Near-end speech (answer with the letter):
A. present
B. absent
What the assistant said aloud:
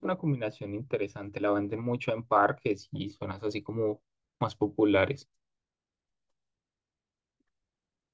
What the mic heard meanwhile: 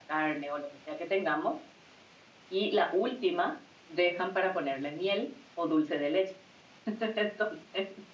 A